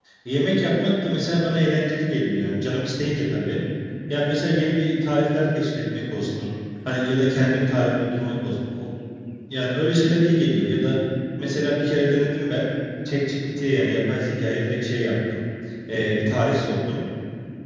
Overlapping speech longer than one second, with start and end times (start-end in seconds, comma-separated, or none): none